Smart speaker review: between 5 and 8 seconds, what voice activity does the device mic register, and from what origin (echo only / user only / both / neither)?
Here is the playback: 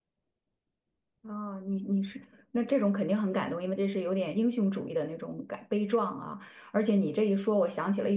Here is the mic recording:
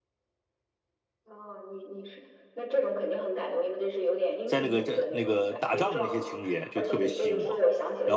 both